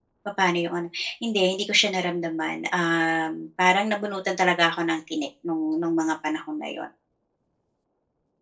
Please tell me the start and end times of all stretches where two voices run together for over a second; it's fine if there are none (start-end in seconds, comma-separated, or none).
none